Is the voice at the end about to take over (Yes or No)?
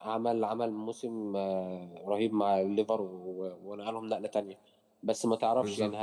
No